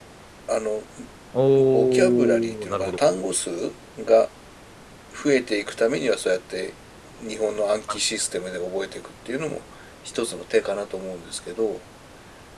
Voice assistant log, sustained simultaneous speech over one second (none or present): present